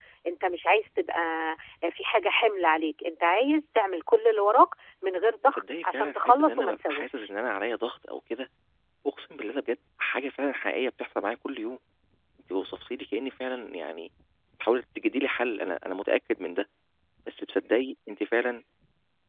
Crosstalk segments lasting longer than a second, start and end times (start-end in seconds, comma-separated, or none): 5.5-7.3